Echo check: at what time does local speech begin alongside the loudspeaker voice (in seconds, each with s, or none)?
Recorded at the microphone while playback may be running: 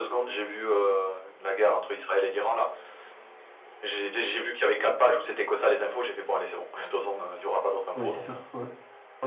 7.9 s